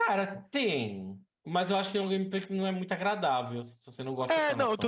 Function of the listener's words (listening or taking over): taking over